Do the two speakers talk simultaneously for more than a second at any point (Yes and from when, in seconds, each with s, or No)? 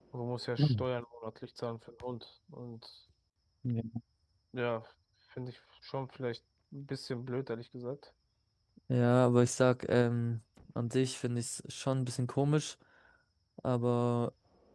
No